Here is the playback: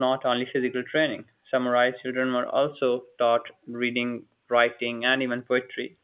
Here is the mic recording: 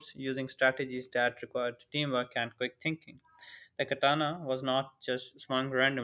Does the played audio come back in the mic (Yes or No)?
No